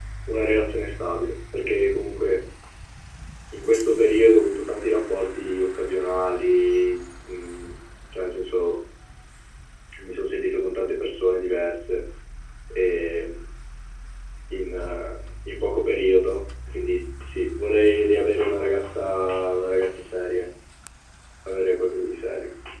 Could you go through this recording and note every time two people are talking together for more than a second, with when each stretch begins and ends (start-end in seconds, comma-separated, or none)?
none